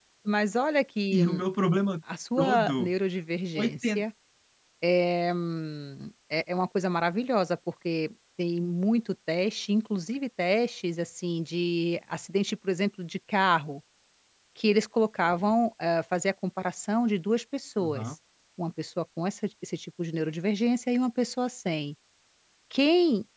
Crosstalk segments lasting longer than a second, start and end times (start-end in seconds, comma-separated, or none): none